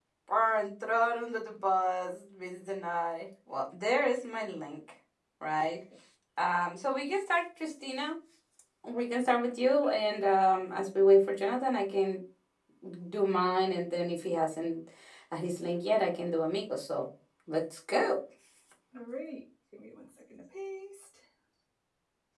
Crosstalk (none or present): none